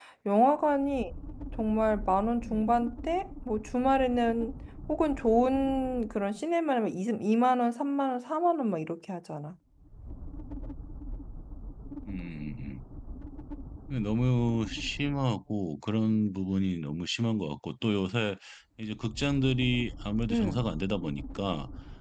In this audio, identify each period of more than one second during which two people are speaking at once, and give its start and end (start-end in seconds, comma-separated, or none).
none